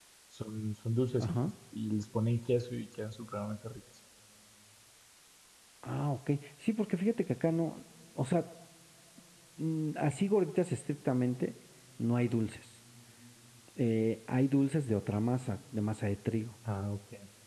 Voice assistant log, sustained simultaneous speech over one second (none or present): none